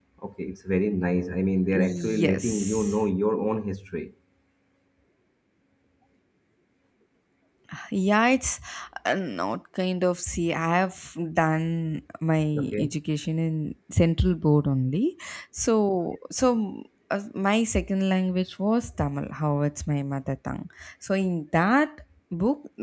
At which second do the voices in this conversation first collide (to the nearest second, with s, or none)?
2 s